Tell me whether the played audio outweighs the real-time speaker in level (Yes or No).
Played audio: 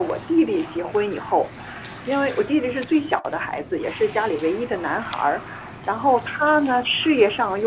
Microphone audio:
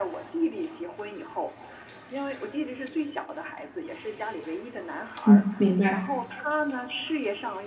No